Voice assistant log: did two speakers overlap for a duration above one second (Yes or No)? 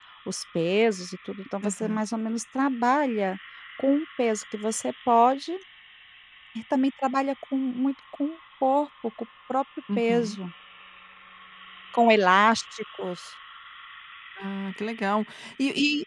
No